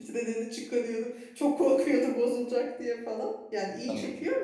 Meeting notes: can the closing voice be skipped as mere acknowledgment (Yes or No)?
Yes